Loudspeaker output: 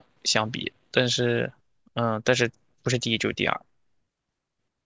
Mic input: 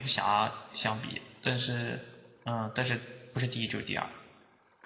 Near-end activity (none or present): none